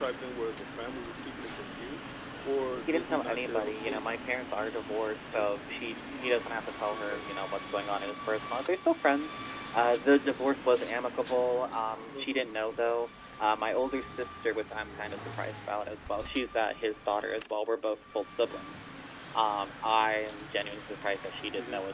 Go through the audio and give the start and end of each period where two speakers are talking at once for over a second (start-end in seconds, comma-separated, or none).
2.9-4.2